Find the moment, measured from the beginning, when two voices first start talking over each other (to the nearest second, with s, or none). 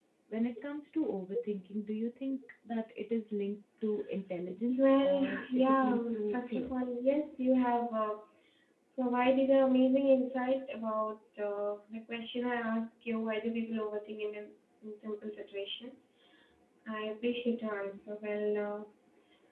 5 s